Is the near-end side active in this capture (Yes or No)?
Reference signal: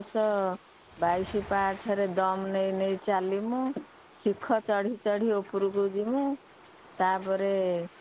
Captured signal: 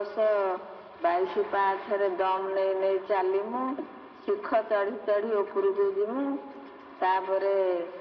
No